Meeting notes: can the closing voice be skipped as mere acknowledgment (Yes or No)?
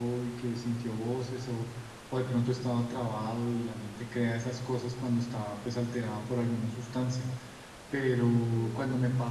Yes